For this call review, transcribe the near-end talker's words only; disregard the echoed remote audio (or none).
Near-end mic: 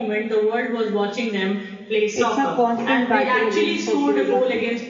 It's a constant battle against the geography.